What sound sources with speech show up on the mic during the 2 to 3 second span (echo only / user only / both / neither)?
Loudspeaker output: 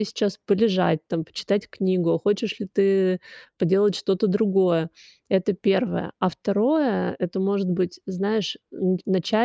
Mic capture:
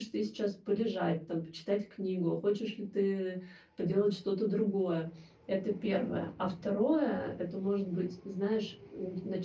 echo only